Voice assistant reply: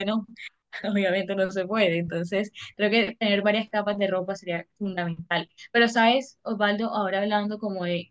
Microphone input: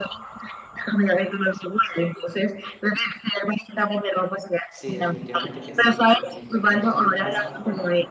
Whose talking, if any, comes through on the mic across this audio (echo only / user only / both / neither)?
both